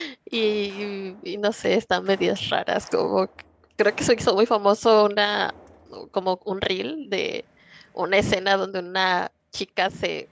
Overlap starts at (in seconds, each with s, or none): none